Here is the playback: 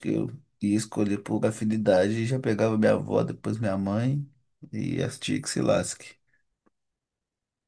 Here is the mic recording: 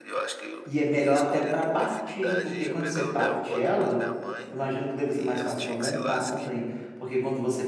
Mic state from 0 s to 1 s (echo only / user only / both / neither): both